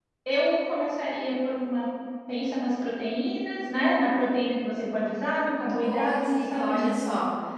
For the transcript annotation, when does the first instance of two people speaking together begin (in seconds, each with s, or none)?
5.7 s